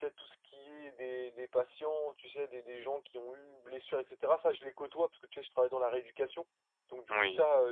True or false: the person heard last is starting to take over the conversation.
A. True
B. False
B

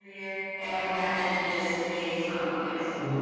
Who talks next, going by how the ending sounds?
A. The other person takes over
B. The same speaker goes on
A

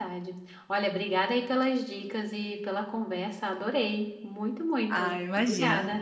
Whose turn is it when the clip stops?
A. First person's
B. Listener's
B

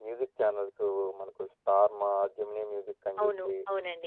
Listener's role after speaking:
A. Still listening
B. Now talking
B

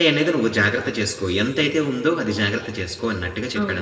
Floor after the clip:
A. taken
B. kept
A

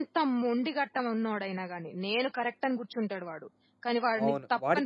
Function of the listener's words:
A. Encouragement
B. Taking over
B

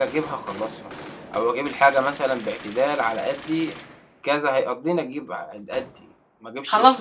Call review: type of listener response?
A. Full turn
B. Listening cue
A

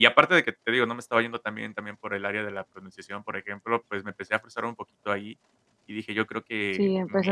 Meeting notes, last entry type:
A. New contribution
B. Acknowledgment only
A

